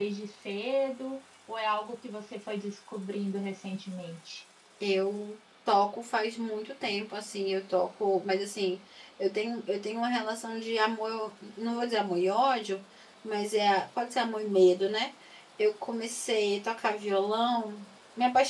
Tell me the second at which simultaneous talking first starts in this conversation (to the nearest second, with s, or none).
none